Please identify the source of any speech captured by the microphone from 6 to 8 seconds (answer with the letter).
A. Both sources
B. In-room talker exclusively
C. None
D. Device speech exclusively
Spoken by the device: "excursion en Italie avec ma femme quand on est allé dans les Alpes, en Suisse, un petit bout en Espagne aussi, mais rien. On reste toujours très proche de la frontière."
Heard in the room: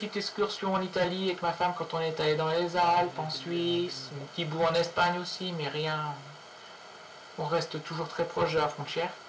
D